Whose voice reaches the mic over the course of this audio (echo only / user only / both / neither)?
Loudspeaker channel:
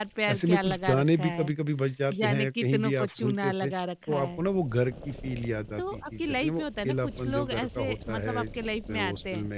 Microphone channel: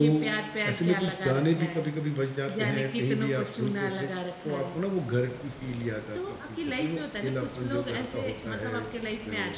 echo only